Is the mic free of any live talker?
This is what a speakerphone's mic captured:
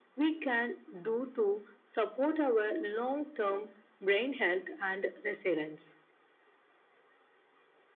Yes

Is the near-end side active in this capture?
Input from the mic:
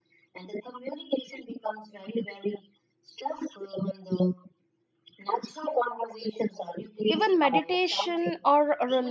Yes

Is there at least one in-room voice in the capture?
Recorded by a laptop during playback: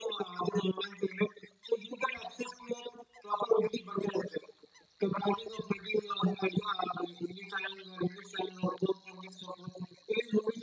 No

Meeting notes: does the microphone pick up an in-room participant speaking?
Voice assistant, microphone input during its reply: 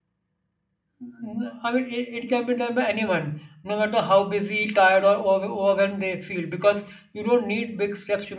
Yes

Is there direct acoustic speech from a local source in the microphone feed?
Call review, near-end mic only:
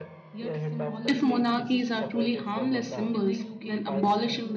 Yes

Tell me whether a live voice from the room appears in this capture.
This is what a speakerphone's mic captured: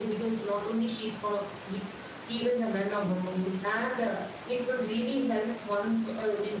No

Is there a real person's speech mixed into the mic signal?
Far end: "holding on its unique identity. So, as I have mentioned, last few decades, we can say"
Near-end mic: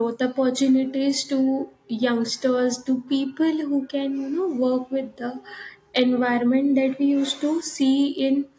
Yes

